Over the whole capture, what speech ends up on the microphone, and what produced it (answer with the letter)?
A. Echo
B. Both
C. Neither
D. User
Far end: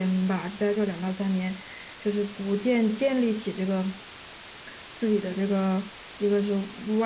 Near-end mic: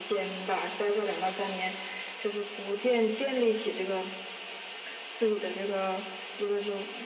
A